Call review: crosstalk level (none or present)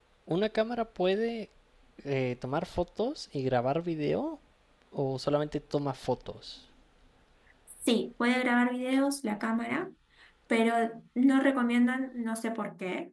none